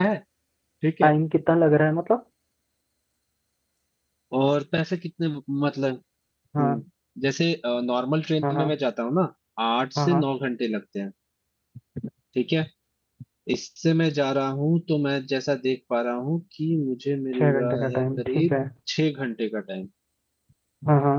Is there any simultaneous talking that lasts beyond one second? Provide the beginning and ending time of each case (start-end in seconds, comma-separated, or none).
17.3-18.5